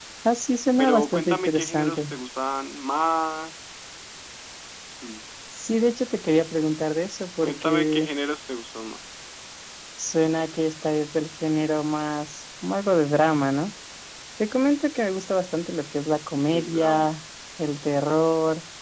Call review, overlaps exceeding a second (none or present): present